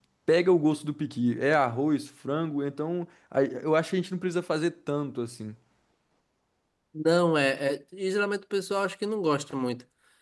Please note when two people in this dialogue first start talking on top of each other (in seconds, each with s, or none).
none